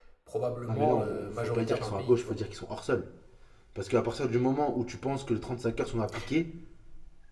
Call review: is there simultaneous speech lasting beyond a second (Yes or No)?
Yes